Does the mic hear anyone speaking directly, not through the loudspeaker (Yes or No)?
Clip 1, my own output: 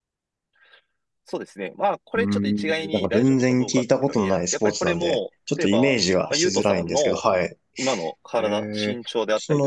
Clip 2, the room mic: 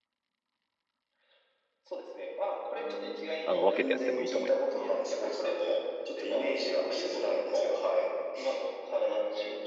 Yes